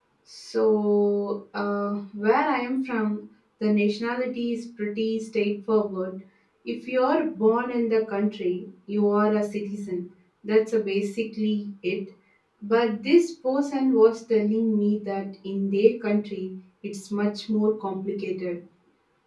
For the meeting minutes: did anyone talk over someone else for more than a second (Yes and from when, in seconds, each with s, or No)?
No